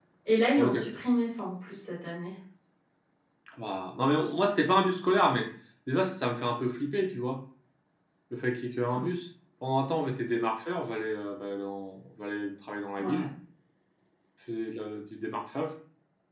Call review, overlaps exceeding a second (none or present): none